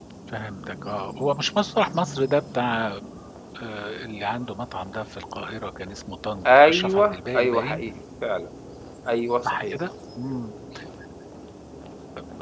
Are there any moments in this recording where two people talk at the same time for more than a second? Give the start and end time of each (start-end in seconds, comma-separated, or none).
6.4-7.8